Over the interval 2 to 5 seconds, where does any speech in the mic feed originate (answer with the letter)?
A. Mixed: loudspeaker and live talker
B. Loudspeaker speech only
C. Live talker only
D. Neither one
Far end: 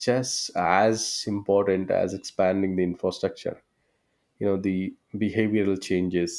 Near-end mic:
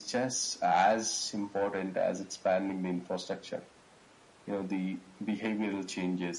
B